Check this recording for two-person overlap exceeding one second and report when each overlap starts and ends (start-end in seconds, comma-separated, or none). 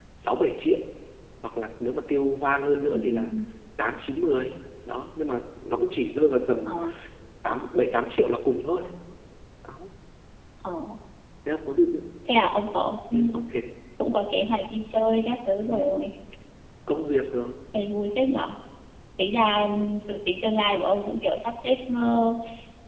none